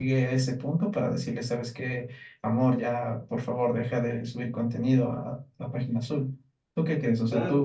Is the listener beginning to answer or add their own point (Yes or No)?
Yes